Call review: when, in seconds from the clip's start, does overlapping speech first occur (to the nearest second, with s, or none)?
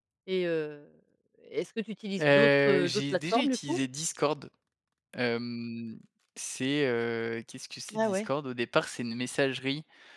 2 s